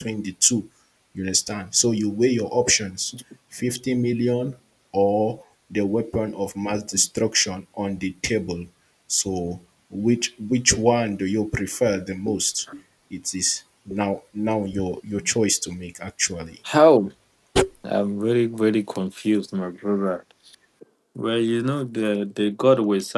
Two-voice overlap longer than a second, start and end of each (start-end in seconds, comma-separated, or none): none